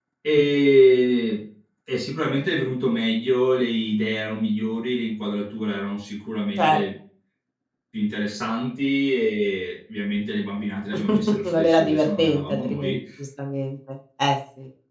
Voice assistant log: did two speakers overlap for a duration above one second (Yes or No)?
Yes